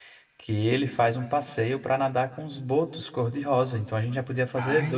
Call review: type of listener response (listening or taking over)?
taking over